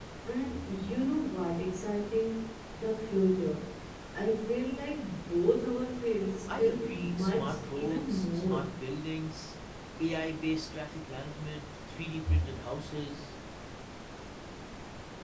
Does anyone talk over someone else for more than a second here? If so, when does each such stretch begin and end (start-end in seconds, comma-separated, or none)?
6.5-8.6